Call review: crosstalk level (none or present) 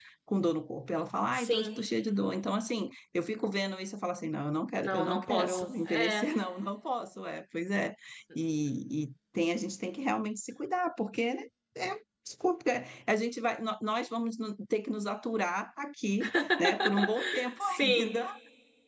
present